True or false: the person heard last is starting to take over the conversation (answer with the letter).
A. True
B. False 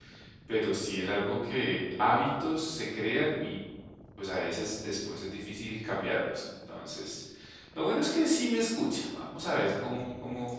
B